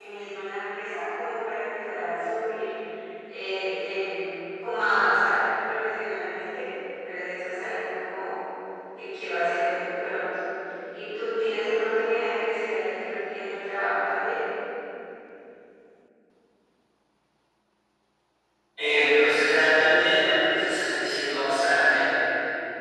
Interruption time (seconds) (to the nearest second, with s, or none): none